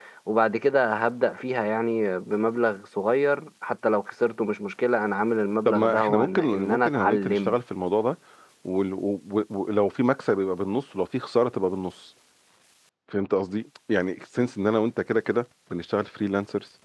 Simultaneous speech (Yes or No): Yes